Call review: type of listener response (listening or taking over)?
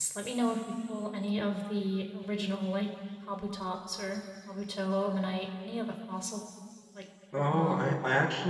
taking over